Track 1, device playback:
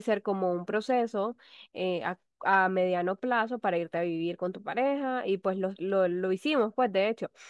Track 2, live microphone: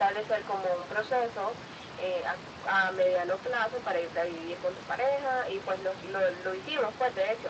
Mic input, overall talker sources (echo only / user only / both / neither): echo only